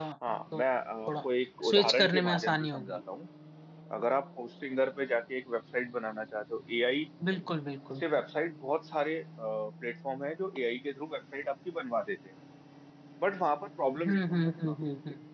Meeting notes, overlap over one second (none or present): present